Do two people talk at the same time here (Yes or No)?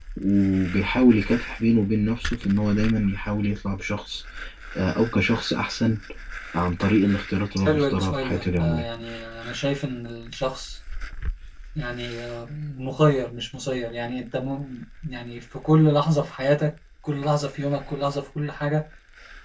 Yes